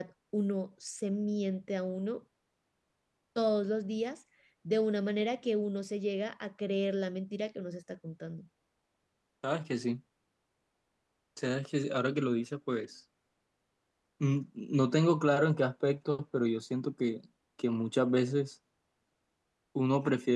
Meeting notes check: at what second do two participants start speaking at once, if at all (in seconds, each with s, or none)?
none